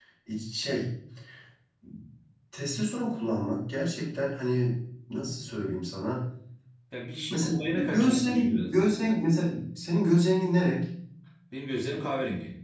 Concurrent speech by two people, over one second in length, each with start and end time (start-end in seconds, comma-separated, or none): 7.3-8.9